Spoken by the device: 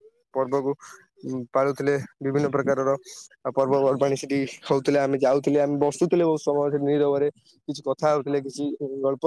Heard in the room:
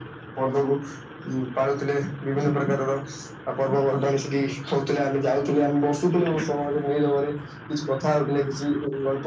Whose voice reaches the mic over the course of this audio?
echo only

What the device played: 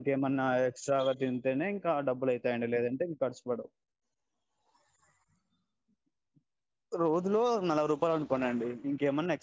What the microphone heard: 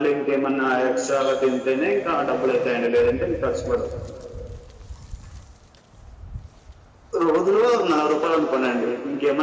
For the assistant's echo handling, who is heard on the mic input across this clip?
echo only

